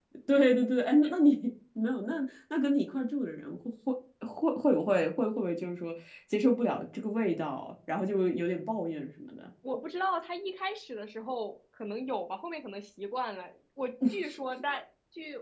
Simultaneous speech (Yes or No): No